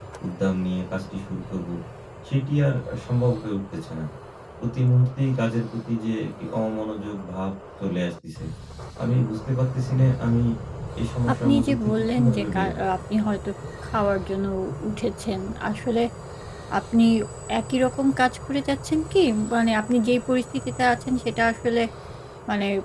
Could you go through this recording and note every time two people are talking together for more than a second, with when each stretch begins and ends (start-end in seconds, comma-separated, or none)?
11.4-12.8